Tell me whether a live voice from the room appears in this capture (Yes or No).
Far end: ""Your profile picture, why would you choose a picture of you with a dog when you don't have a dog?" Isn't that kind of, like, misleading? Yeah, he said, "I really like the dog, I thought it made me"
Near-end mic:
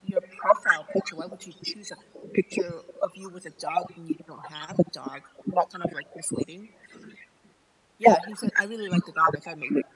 No